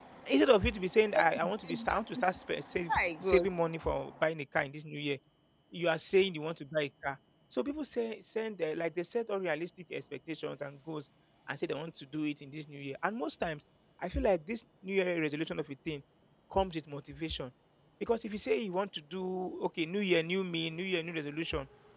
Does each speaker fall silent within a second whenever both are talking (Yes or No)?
No